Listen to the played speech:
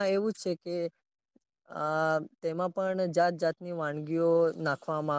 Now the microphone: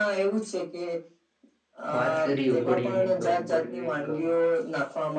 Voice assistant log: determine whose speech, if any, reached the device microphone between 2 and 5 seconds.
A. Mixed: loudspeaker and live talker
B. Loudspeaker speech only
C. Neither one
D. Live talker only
A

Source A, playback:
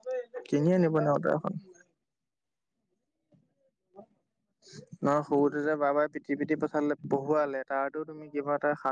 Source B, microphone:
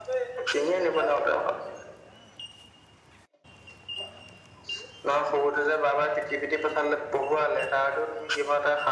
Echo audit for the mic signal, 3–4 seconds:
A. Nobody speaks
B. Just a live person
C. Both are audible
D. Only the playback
A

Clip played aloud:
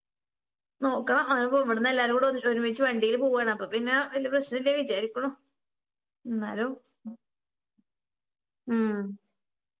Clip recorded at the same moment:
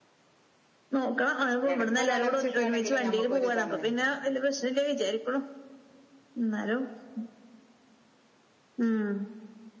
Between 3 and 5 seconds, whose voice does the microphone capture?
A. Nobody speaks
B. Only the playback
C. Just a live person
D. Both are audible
D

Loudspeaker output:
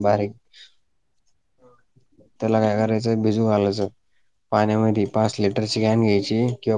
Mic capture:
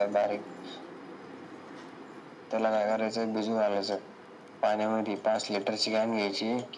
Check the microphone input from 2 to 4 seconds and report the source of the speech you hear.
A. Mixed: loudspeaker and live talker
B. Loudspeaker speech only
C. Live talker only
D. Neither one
B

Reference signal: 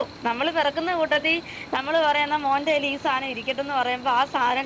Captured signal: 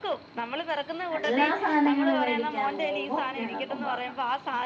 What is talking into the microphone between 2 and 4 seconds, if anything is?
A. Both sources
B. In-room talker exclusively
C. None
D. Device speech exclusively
A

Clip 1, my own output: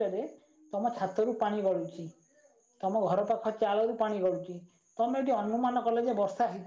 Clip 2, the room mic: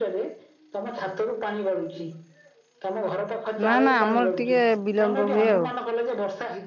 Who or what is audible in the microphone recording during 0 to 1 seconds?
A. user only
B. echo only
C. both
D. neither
B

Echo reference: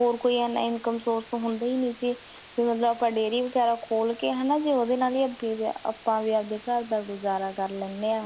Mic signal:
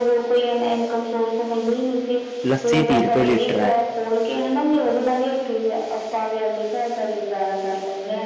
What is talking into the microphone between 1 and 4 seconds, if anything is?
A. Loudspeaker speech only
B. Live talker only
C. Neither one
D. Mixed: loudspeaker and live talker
D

